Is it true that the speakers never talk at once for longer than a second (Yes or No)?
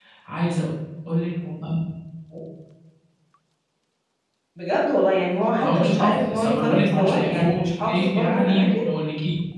No